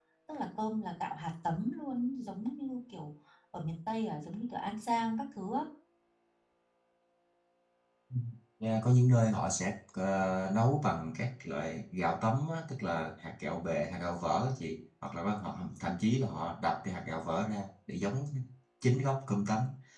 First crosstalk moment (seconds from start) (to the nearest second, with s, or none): none